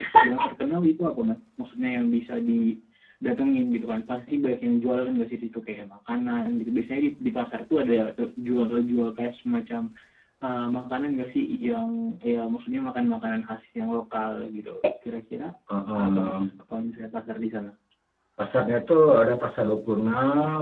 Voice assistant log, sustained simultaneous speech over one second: none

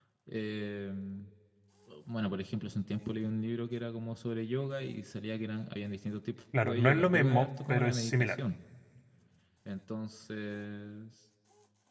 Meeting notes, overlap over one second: present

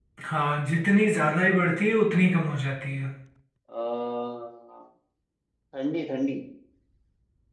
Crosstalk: none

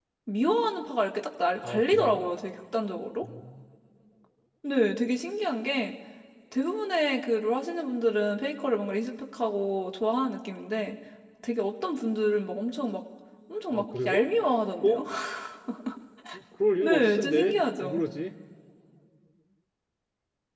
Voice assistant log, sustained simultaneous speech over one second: present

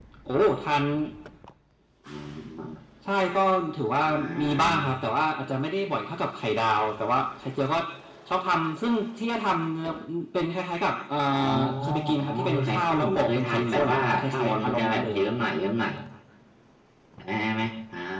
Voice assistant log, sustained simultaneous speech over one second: present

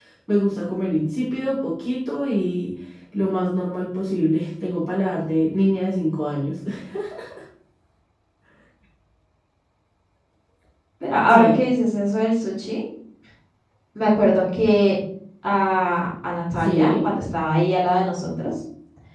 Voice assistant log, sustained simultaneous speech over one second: none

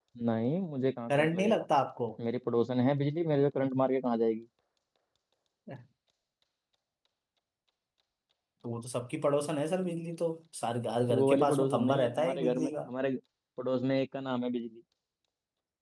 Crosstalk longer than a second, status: present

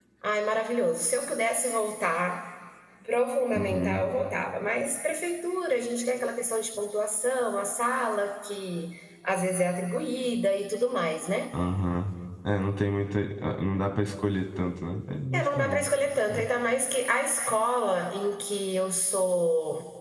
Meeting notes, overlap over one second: none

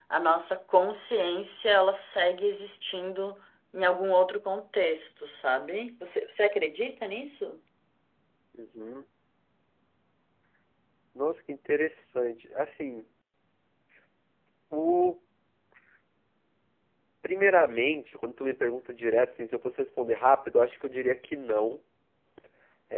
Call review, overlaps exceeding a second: none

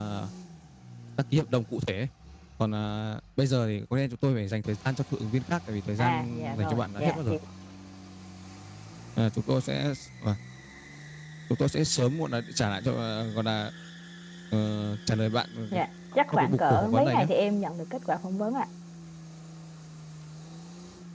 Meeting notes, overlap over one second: present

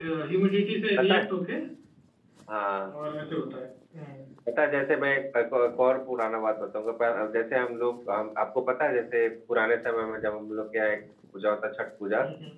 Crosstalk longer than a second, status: none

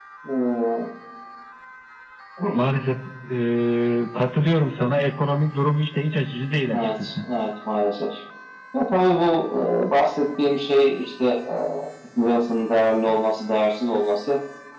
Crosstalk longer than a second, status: none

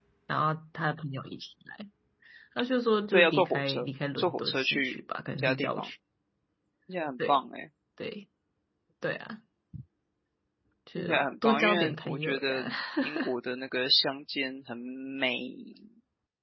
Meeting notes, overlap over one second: present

